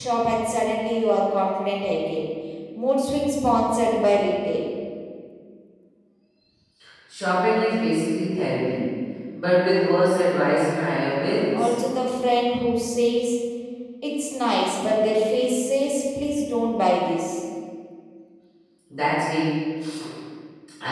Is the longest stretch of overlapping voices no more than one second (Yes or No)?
Yes